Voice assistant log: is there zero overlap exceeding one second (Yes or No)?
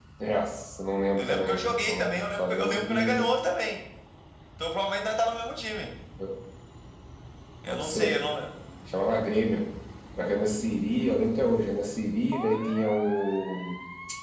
No